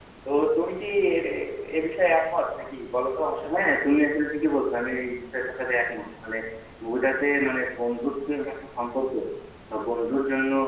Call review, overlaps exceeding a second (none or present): none